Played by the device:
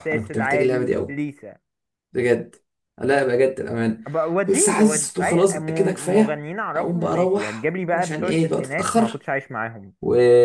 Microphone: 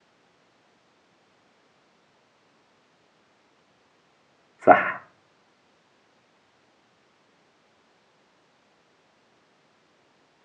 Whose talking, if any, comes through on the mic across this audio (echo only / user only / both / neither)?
user only